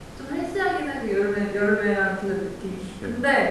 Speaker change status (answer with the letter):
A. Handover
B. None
B